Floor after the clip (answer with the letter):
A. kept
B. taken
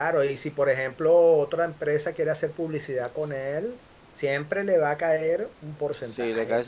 B